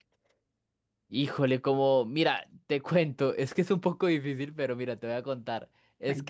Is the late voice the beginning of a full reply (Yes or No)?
No